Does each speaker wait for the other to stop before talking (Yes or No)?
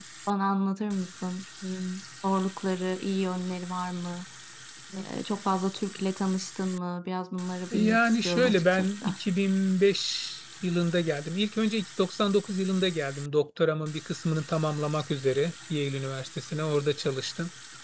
No